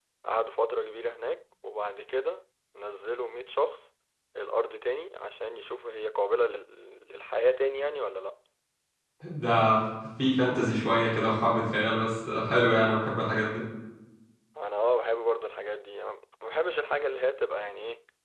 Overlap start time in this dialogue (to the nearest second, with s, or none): none